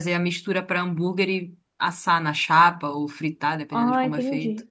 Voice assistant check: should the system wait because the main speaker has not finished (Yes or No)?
No